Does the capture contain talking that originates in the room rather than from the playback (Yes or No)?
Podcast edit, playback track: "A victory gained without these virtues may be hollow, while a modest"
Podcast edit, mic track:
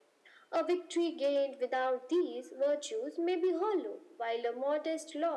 No